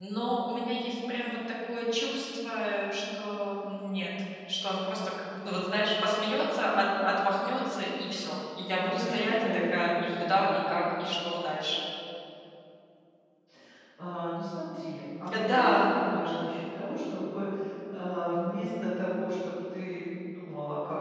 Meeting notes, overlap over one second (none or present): present